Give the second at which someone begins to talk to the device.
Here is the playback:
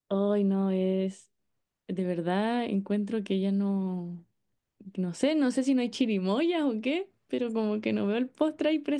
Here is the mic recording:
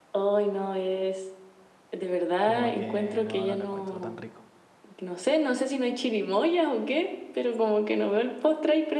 2.4 s

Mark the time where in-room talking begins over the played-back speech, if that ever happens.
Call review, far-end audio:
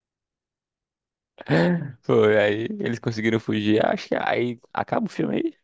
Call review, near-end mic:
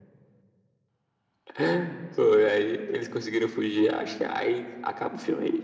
none

